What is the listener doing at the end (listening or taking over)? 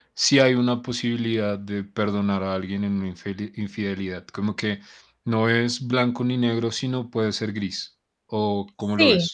taking over